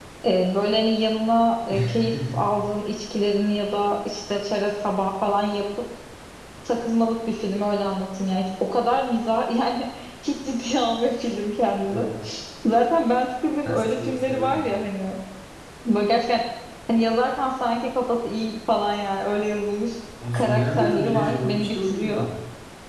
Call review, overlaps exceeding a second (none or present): present